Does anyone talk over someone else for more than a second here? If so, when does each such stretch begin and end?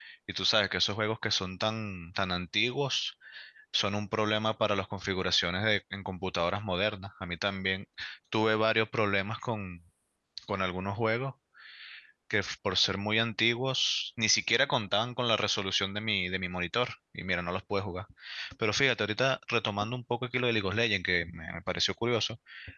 none

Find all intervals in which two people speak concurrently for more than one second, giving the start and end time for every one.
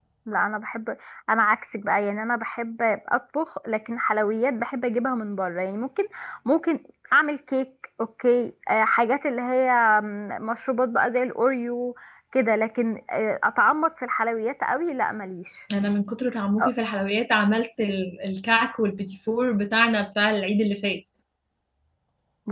none

